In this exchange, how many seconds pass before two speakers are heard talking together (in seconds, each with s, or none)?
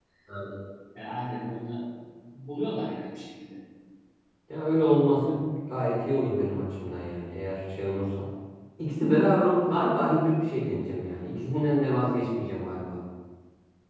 none